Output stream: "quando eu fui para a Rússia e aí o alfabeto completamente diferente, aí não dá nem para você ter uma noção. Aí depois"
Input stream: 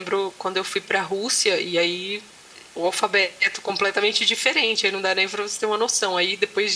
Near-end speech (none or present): none